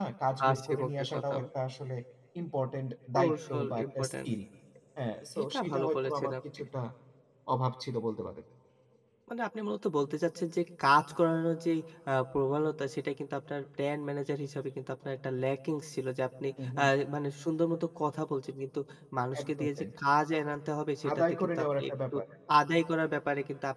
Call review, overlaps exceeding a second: present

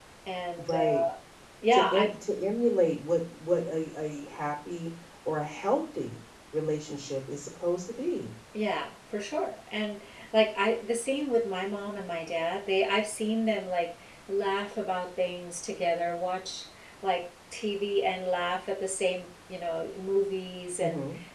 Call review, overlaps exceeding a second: none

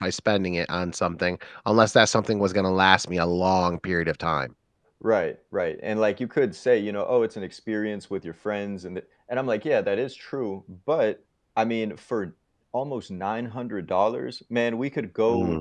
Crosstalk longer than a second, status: none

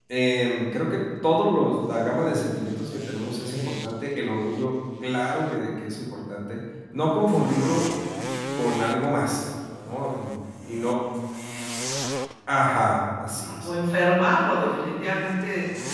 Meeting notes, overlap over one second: none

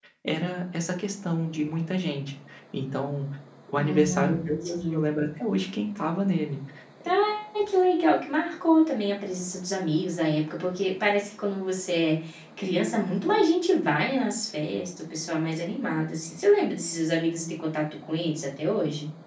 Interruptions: present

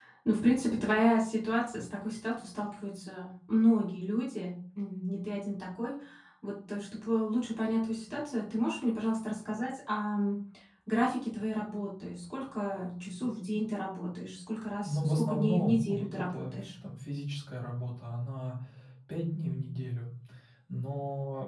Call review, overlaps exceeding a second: present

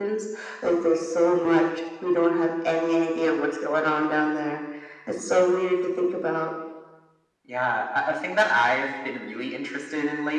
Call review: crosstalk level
none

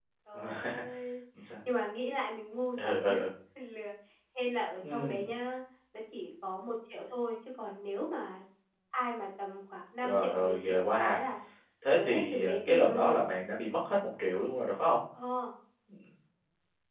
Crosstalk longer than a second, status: present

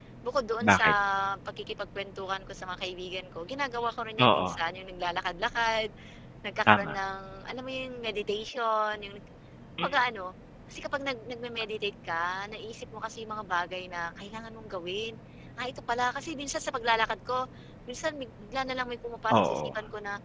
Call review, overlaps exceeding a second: none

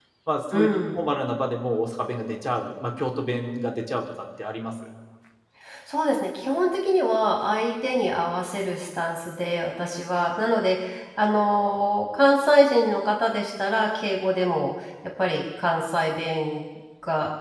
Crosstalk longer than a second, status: none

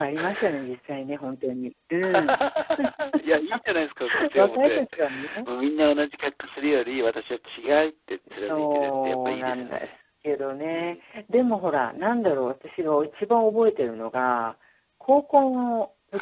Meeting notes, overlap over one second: present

